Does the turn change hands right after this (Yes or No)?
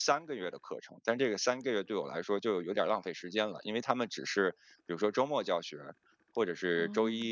No